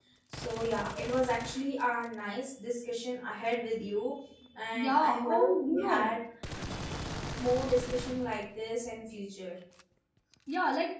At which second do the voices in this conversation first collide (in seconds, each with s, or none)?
4.7 s